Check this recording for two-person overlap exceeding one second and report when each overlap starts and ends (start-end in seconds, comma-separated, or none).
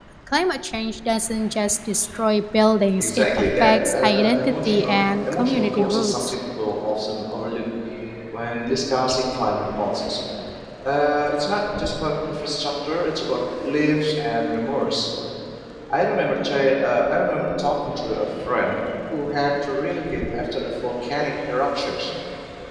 3.0-6.3